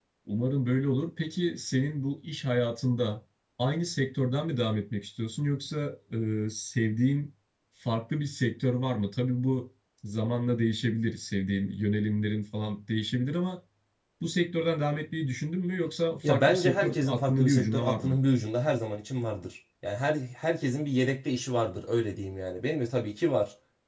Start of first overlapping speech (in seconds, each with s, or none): 16.2 s